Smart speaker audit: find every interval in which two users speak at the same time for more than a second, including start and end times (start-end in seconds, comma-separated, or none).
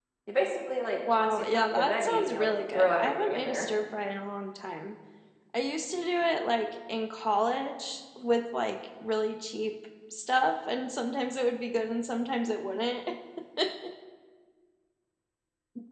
1.2-3.7